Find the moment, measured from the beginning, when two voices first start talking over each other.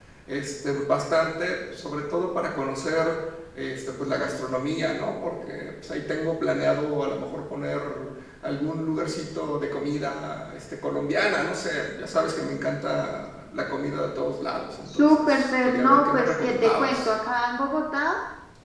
15.0 s

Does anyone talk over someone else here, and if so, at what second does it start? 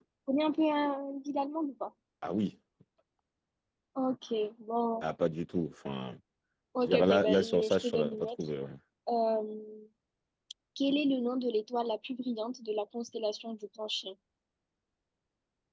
6.8 s

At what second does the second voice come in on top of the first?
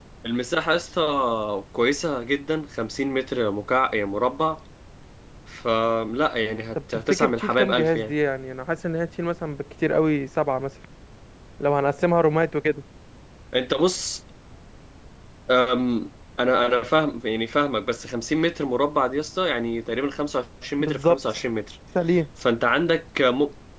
6.9 s

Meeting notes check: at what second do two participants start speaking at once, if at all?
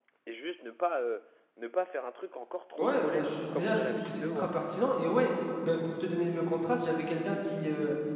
2.8 s

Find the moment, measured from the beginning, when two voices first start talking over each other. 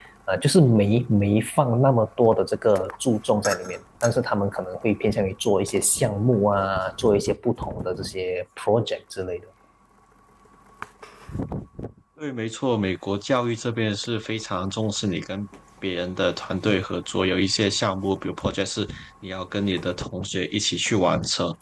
none

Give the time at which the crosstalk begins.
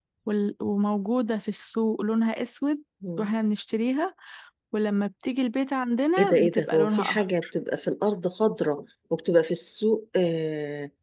6.2 s

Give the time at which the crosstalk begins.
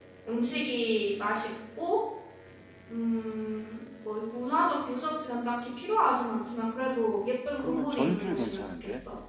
7.1 s

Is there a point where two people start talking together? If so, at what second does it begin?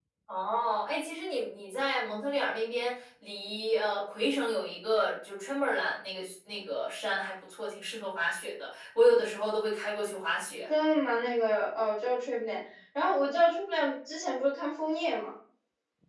none

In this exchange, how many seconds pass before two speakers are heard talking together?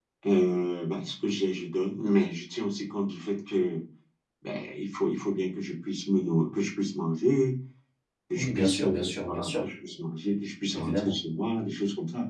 8.4 s

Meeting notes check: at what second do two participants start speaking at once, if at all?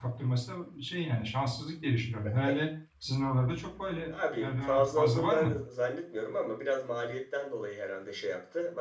4.1 s

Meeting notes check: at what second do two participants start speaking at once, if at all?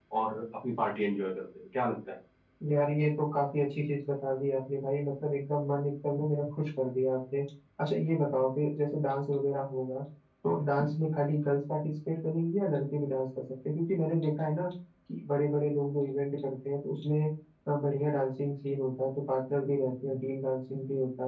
none

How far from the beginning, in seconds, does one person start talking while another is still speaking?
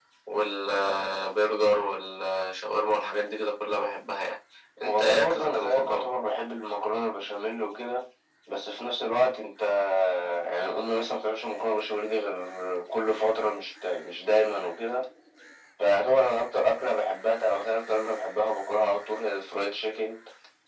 4.8 s

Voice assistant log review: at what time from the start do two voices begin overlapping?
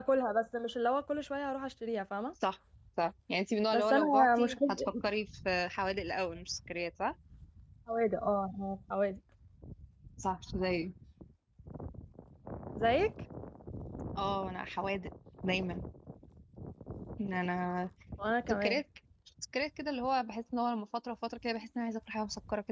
3.7 s

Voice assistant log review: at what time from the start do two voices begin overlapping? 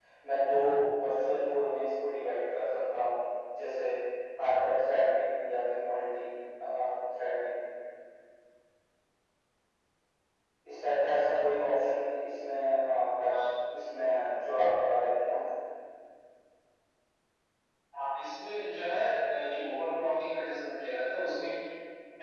none

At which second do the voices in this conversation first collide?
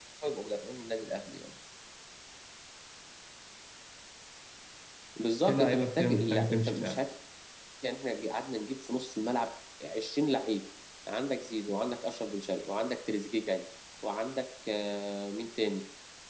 5.5 s

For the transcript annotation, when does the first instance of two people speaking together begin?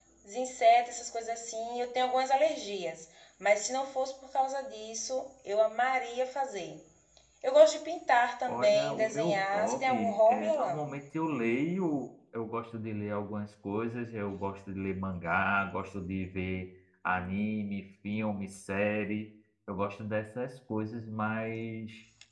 8.4 s

